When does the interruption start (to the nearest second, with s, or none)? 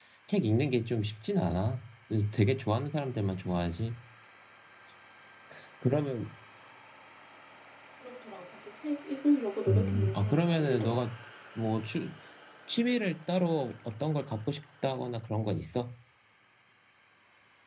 10 s